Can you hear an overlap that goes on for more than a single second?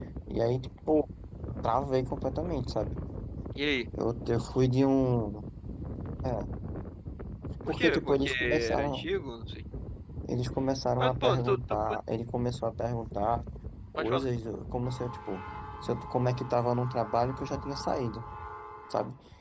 Yes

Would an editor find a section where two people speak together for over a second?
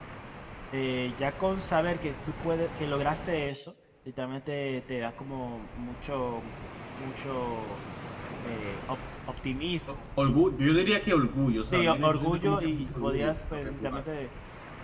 Yes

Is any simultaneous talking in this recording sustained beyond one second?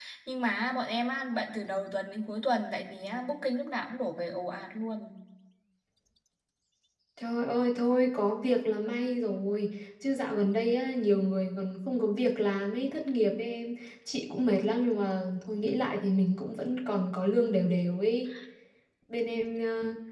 No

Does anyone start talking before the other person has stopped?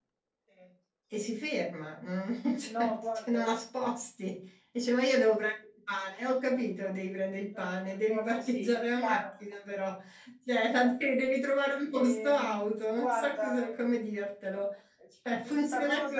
Yes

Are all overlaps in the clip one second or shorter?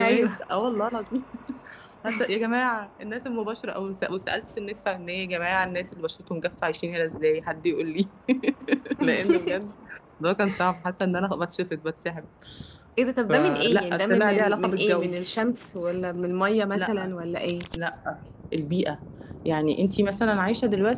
No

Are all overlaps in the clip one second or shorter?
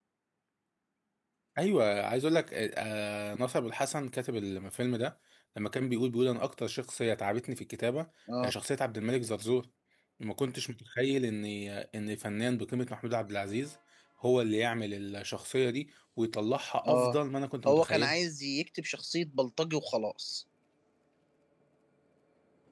Yes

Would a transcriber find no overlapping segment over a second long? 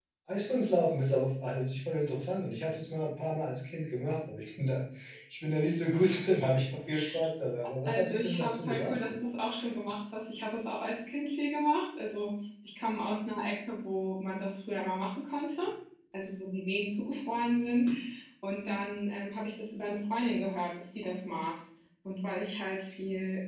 No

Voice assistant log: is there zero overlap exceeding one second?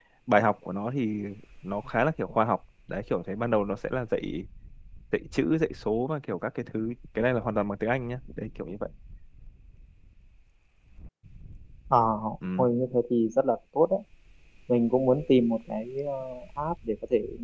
Yes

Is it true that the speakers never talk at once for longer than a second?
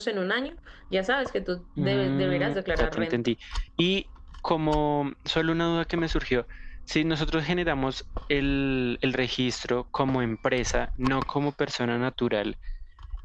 No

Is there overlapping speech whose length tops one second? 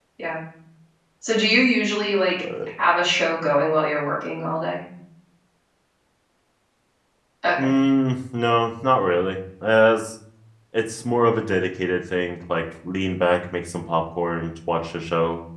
No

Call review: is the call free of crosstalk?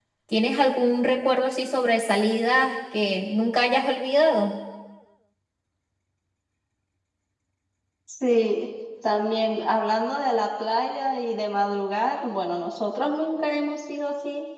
Yes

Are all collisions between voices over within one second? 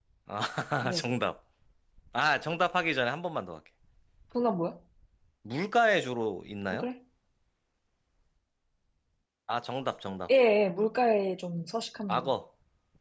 Yes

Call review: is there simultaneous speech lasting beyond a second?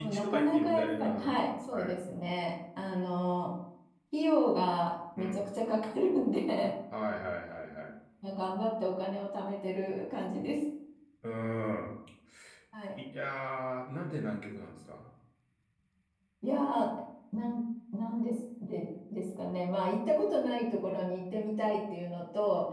Yes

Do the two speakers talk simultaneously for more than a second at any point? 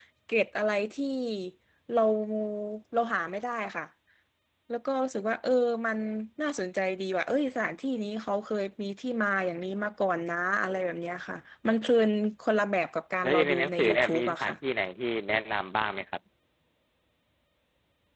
Yes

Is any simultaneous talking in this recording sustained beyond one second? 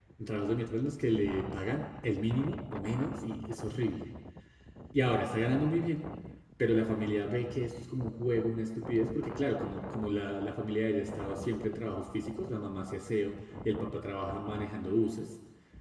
No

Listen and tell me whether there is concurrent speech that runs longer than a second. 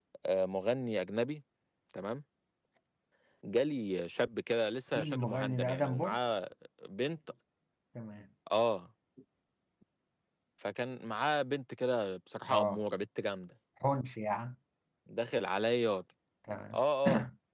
Yes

